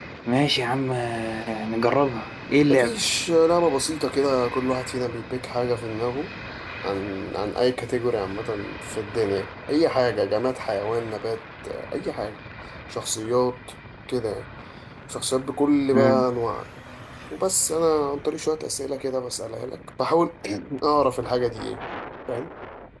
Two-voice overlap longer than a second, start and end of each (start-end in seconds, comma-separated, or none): none